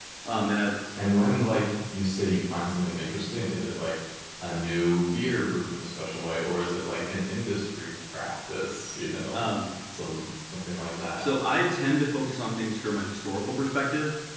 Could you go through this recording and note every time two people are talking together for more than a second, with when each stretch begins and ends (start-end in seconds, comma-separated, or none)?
none